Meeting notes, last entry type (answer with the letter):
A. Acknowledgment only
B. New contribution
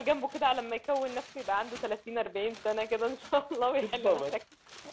B